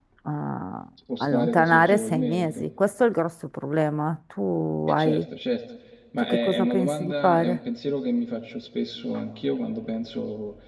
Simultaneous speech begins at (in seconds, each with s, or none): 1.2 s